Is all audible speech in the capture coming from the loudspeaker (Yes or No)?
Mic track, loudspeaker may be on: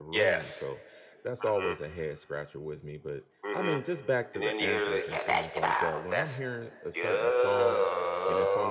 No